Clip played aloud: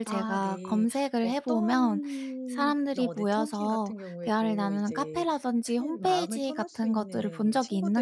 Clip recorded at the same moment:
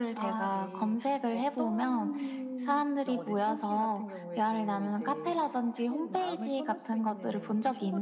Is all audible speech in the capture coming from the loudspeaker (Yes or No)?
Yes